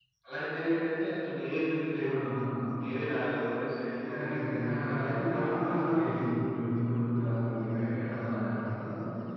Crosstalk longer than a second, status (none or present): present